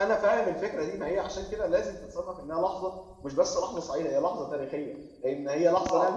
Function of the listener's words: listening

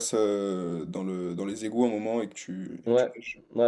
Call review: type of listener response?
taking over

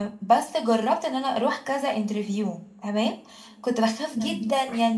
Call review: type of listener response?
listening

